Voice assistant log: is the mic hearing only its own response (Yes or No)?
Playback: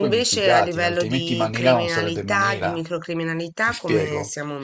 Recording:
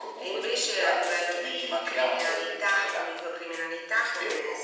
Yes